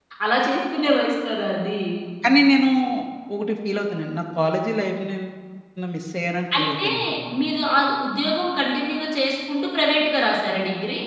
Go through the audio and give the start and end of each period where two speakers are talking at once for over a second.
none

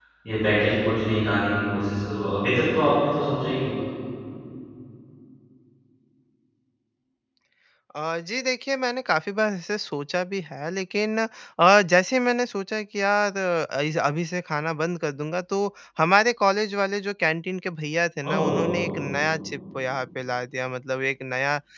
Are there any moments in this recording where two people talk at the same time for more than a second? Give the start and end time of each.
none

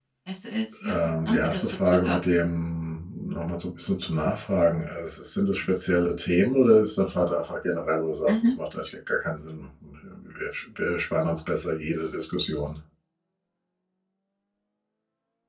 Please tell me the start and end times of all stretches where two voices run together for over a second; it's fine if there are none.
0.8-2.2

